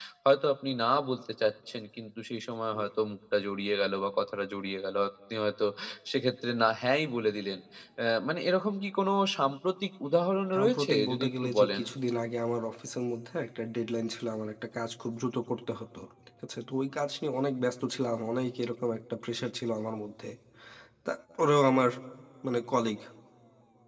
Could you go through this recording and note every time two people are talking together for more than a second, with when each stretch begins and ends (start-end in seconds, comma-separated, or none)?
10.6-11.8